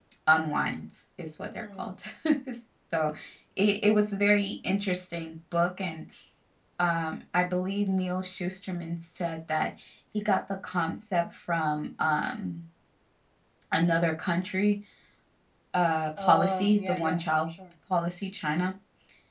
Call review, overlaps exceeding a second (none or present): present